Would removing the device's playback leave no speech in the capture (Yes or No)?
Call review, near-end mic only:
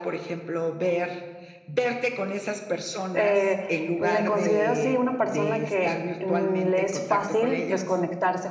No